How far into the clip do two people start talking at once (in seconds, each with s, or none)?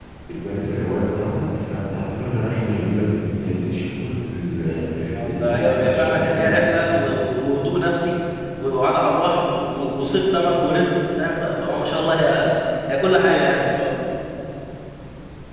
5.3 s